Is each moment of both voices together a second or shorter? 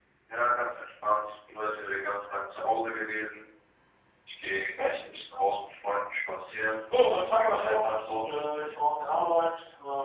No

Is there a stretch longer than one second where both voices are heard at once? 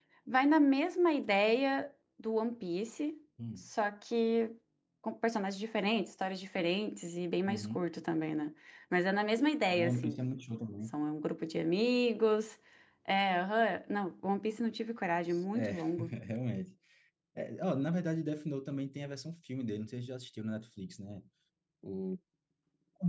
No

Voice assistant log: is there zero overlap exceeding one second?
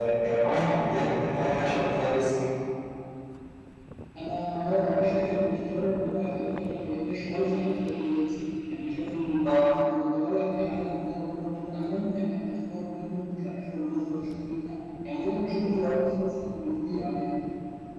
Yes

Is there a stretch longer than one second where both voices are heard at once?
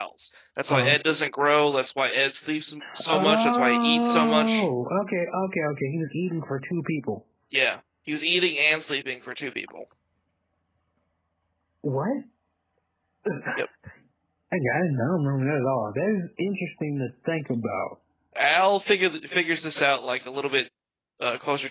Yes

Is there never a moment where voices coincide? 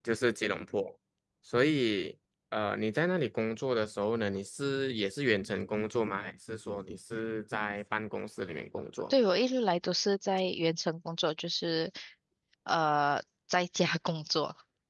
Yes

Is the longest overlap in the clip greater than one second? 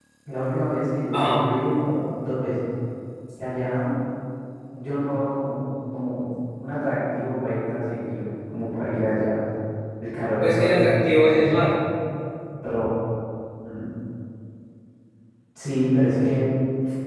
Yes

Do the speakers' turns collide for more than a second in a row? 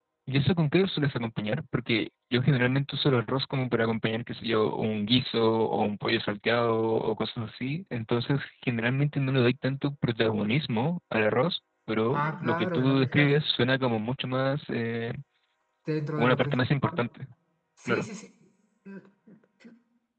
Yes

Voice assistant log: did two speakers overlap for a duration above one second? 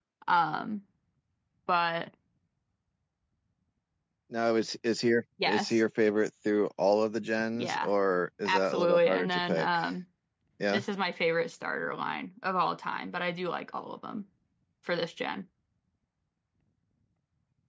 Yes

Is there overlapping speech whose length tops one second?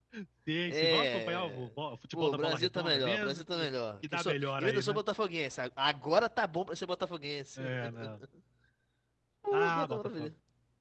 Yes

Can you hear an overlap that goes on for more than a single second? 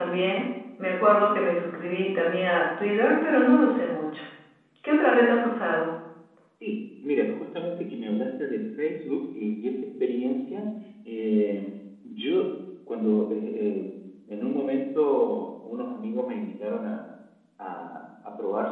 No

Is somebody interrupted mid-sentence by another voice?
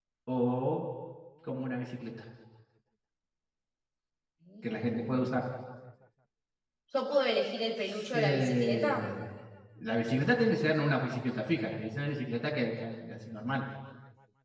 Yes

